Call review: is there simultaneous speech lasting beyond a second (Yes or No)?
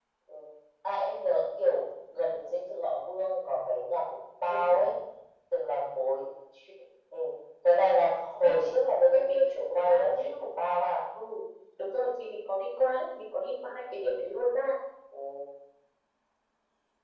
Yes